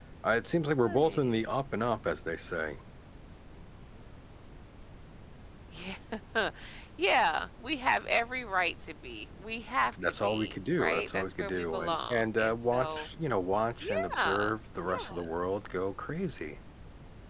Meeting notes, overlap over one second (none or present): present